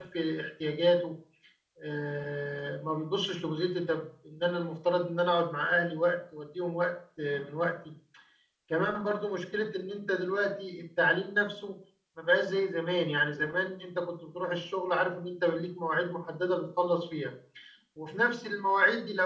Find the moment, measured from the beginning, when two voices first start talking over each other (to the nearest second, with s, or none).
none